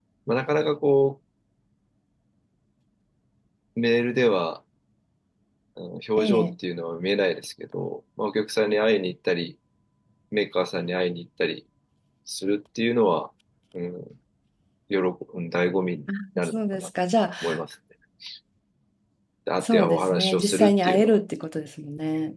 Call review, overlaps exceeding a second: present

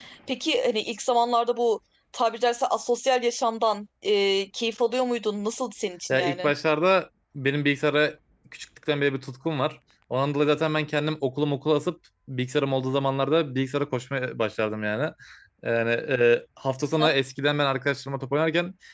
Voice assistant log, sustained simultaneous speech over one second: none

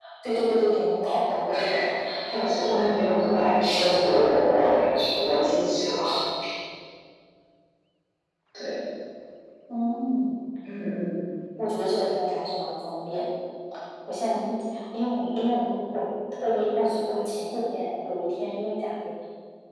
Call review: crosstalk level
present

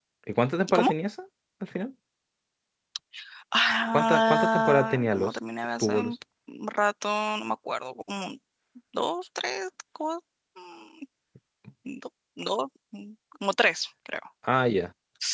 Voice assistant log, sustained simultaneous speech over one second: present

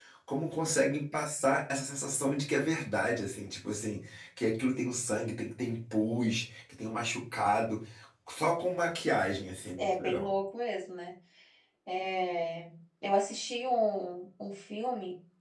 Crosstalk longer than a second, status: none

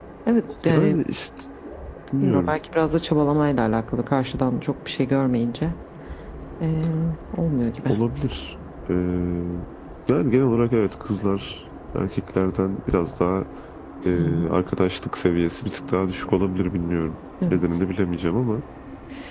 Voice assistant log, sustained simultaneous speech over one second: none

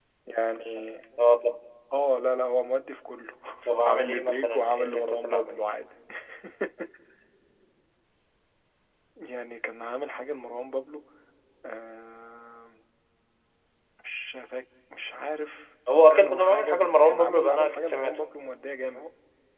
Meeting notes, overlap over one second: present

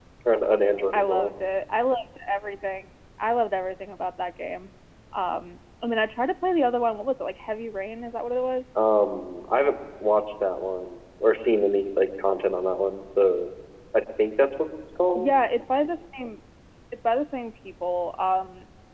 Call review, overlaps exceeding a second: none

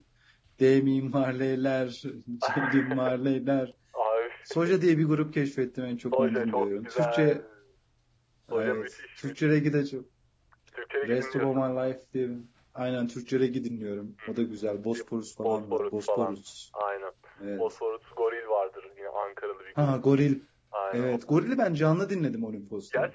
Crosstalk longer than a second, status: present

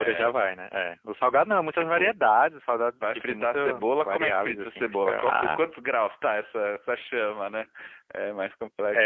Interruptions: present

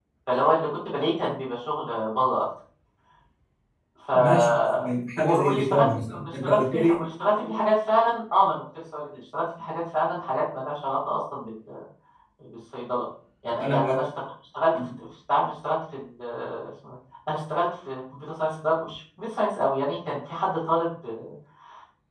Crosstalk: present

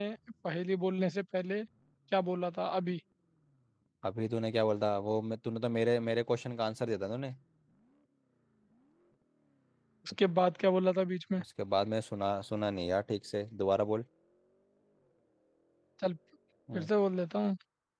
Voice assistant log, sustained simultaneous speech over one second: none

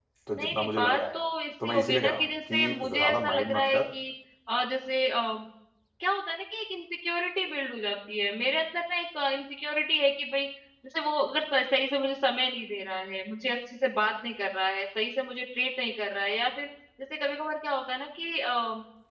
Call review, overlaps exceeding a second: present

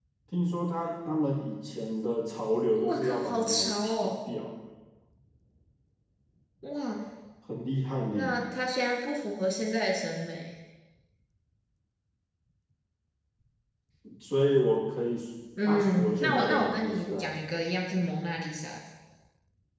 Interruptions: present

